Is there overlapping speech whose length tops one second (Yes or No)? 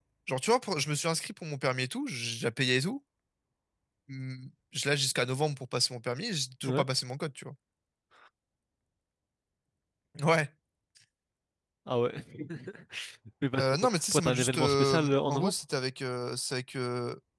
Yes